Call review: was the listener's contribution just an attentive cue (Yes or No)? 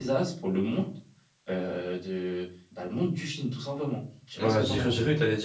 No